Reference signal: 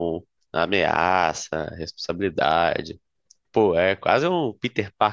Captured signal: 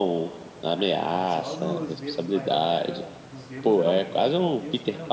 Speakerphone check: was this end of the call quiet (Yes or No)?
No